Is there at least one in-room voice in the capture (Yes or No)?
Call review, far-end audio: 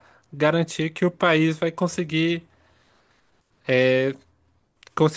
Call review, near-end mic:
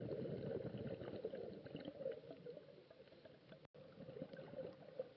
No